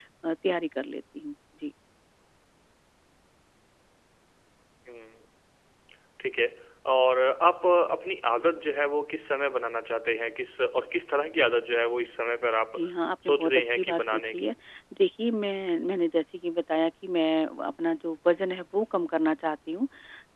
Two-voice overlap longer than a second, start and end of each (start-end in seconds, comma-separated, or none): 13.3-14.5